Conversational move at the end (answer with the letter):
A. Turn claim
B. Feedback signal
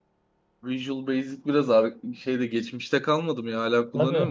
A